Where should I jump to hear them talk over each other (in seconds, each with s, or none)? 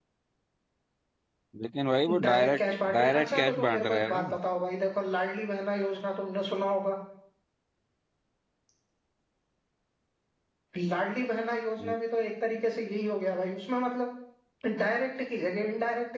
2.2 s